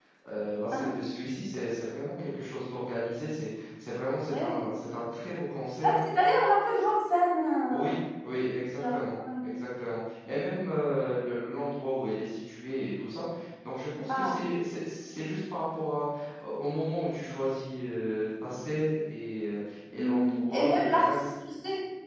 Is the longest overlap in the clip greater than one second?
Yes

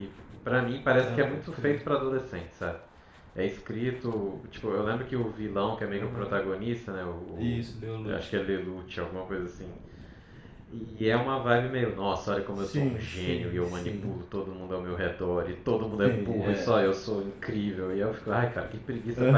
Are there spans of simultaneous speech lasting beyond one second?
Yes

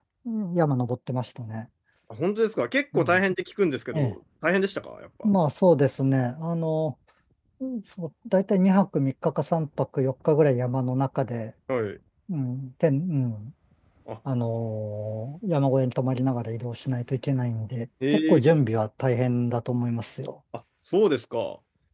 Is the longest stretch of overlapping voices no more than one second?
Yes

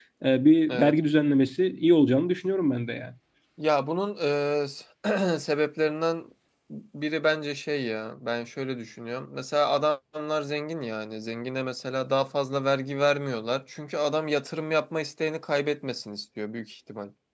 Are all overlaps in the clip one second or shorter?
Yes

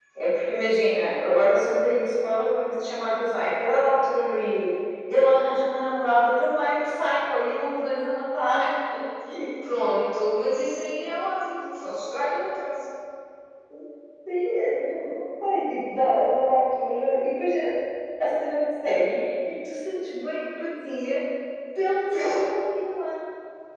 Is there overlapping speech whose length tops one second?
No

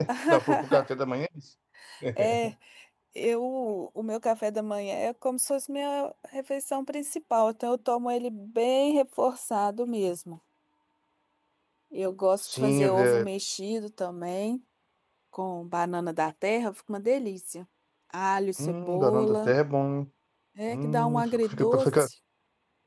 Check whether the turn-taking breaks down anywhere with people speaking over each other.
Yes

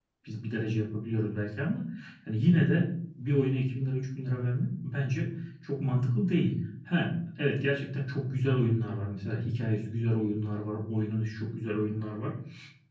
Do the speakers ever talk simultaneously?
No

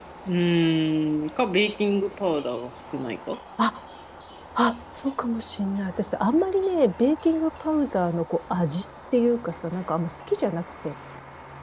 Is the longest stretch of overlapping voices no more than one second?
Yes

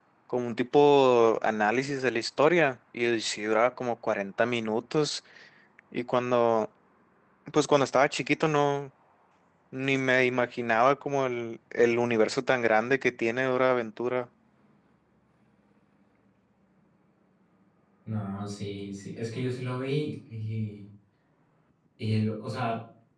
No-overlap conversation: Yes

